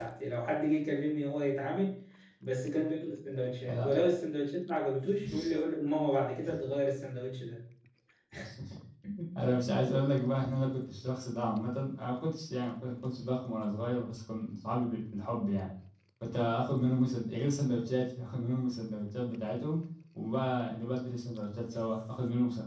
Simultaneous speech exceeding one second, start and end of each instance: none

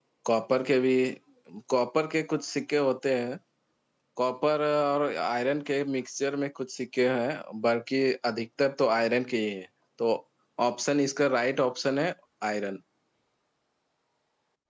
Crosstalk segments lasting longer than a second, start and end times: none

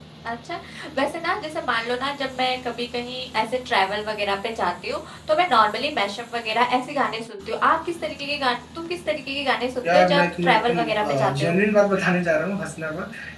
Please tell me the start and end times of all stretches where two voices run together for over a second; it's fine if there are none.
9.8-11.5

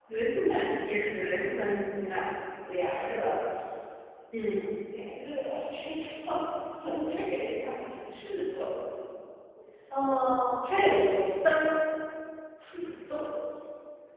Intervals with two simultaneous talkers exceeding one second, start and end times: none

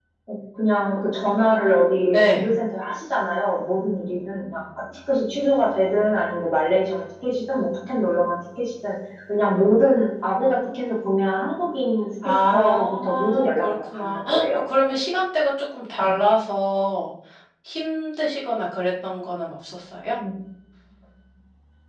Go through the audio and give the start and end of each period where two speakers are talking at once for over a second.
12.5-14.4

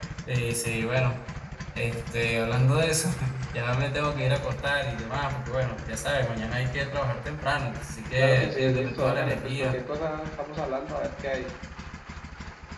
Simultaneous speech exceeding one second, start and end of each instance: 8.2-9.8

